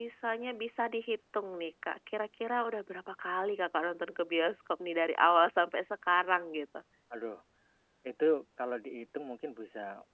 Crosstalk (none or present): none